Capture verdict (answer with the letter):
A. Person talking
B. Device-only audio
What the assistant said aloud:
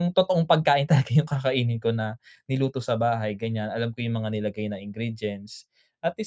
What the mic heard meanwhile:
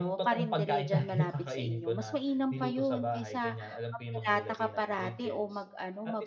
A